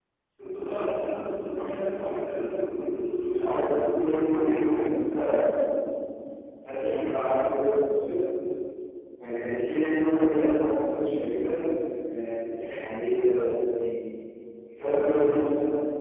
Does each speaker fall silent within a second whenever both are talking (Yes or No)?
No